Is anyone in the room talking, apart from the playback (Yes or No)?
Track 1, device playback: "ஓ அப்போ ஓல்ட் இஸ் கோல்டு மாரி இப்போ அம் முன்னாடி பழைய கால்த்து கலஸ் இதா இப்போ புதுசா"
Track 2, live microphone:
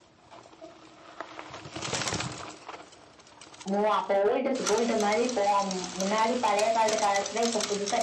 No